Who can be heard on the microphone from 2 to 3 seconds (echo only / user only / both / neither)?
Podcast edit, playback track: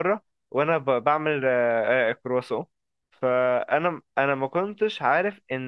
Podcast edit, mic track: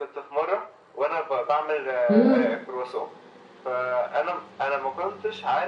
both